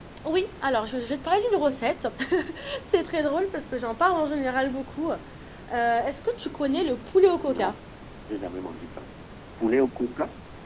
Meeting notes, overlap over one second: none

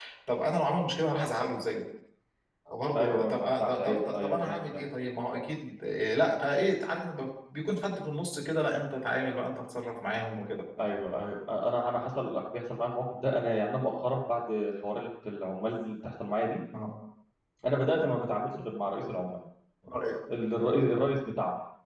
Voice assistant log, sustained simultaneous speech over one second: present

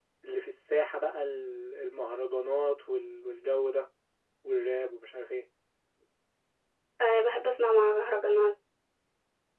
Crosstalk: none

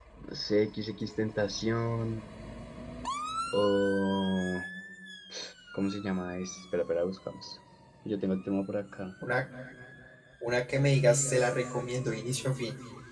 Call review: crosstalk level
none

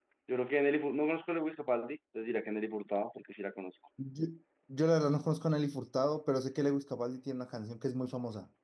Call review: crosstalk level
none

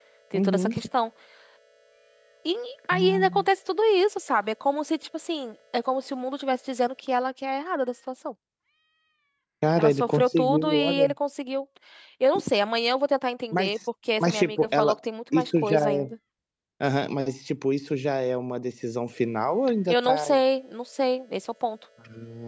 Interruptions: present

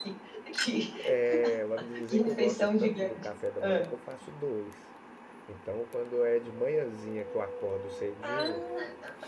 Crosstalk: present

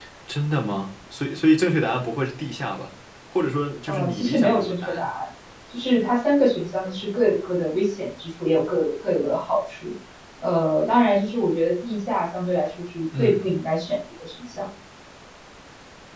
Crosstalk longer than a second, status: present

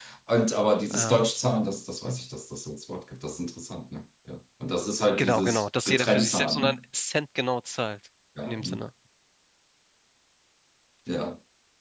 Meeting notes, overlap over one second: present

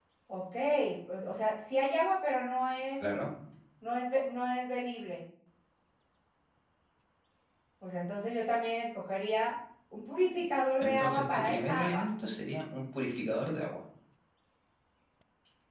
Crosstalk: present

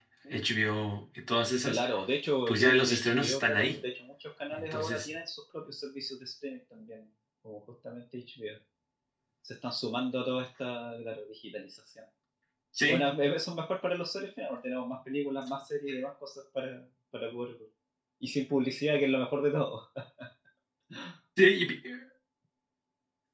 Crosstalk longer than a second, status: present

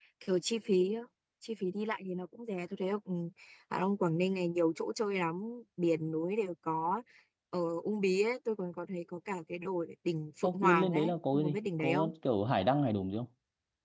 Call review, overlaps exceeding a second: present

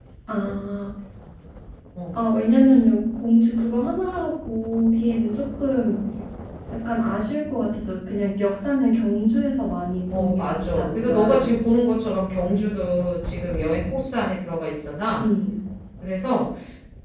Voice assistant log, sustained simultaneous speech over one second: present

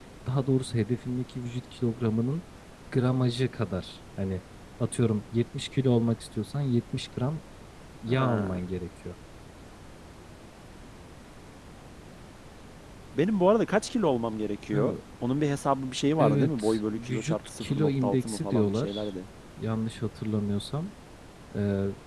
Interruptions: present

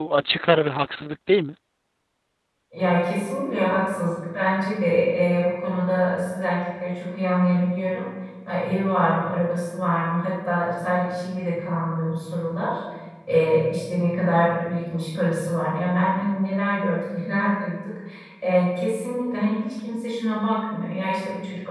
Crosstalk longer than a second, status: none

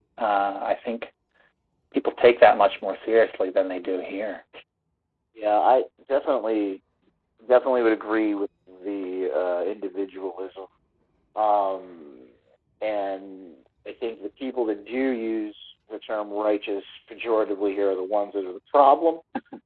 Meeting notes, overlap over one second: none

